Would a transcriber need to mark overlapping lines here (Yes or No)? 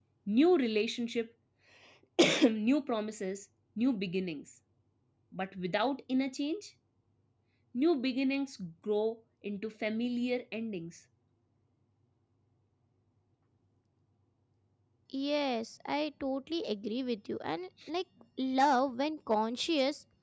No